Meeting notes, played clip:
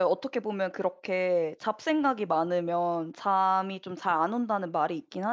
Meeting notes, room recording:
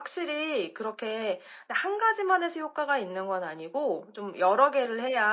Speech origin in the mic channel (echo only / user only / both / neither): user only